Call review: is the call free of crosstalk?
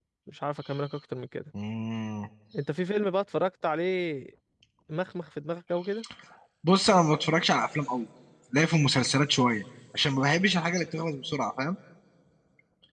Yes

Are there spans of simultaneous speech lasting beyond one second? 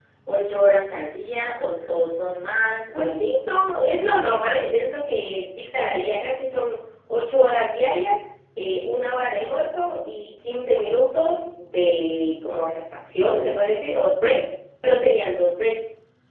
No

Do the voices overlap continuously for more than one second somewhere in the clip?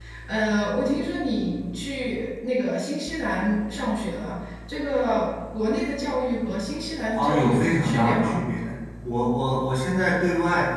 Yes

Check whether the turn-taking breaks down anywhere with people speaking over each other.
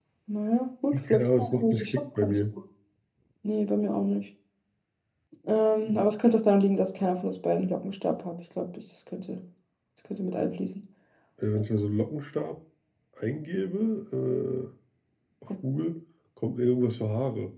Yes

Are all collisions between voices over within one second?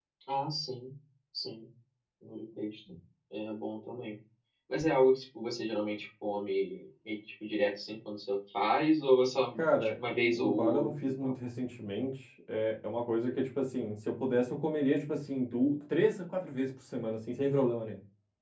No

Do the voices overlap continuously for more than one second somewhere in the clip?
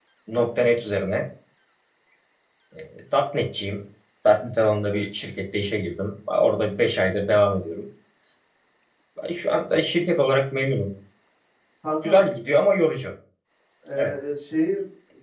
No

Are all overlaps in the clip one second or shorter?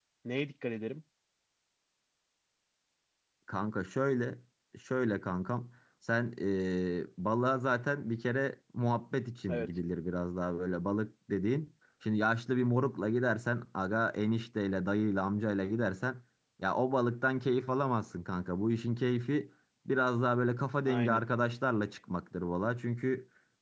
Yes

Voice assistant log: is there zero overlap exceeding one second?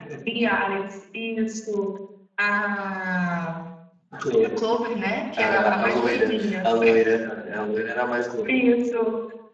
No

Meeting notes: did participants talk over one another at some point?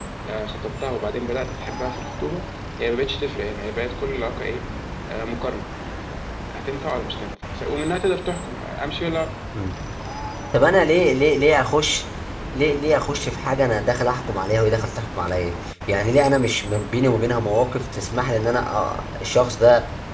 No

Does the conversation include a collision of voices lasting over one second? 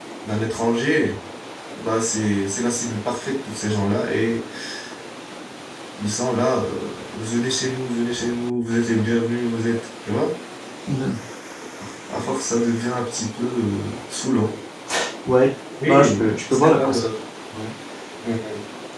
Yes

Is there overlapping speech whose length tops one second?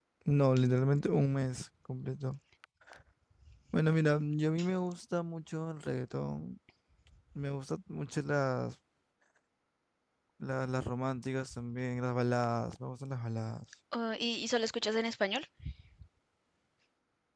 No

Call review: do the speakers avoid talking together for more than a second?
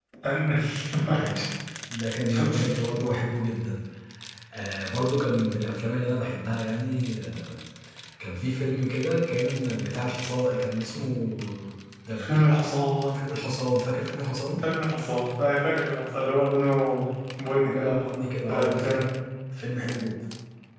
No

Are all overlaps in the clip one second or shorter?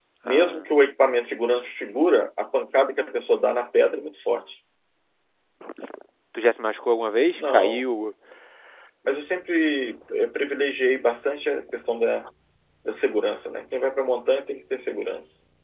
Yes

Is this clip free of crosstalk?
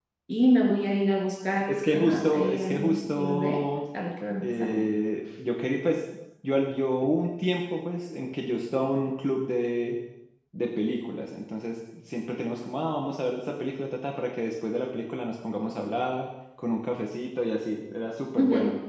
No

